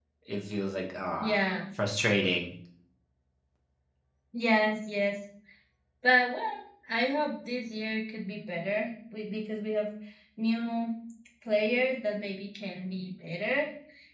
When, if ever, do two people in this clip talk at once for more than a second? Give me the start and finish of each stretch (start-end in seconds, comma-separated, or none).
none